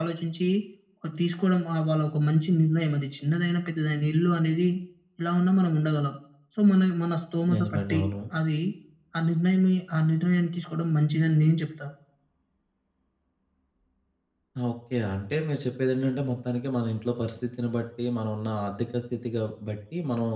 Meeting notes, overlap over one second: none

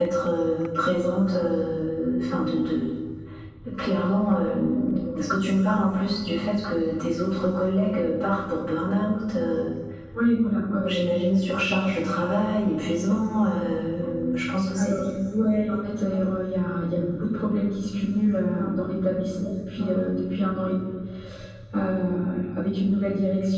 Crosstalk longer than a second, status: none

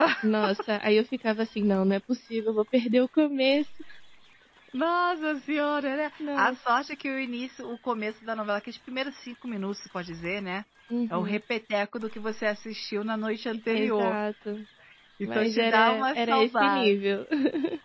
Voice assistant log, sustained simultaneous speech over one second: present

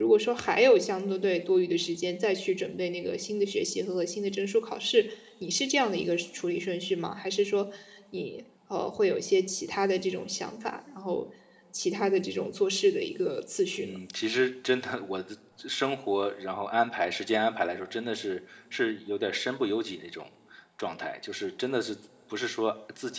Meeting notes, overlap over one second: none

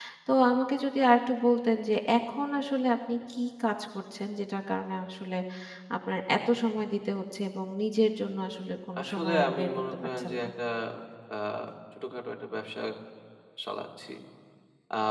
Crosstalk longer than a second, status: present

